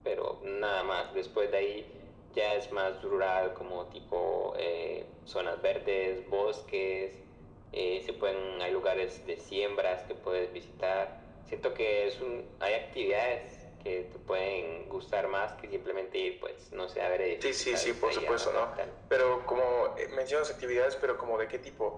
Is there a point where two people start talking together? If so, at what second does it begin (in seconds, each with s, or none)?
17.4 s